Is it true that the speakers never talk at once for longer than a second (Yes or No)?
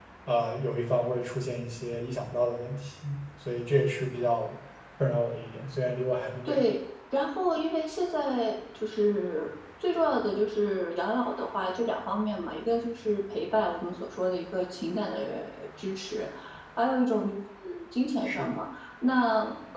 Yes